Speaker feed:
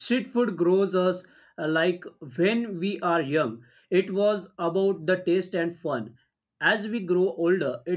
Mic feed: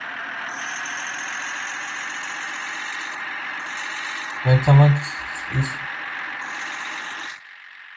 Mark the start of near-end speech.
4.4 s

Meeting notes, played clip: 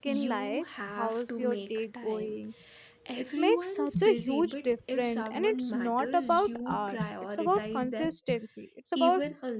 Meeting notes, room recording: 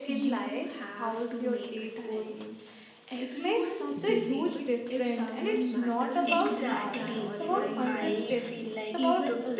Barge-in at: 6.2 s

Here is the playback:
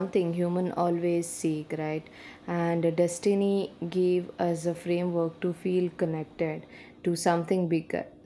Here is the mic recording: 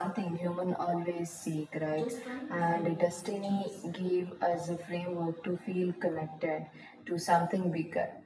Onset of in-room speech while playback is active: 1.9 s

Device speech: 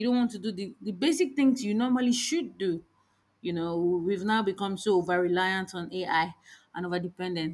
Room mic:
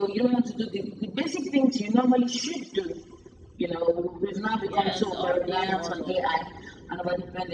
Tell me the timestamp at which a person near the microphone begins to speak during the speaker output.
4.7 s

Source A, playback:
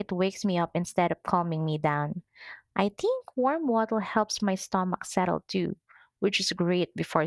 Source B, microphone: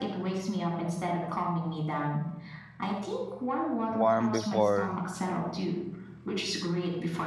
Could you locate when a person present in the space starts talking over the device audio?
3.9 s

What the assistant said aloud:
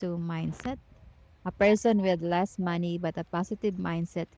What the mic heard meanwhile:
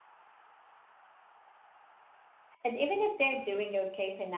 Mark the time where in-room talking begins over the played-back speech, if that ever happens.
2.6 s

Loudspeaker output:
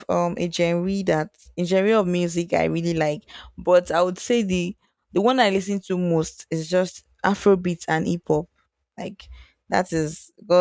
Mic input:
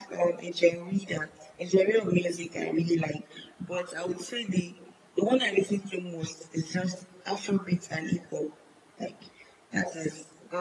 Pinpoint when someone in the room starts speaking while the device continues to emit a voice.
none

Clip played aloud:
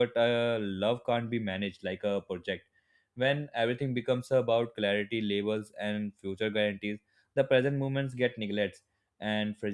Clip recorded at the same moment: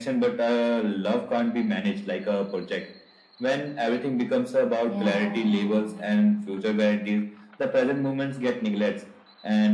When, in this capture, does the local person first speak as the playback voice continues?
4.9 s

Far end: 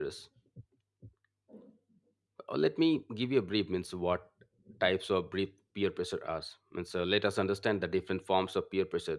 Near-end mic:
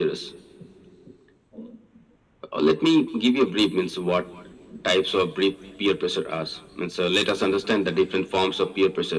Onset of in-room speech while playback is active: none

